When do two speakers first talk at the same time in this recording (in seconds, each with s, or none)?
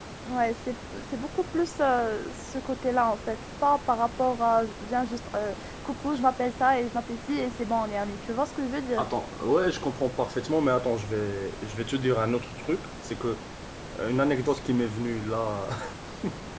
none